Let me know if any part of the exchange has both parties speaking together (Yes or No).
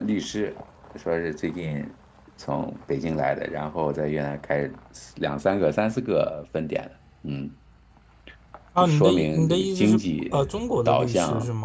Yes